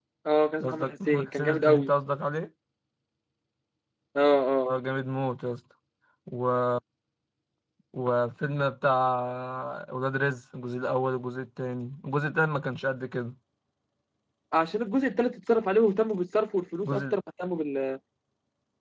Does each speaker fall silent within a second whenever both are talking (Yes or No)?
No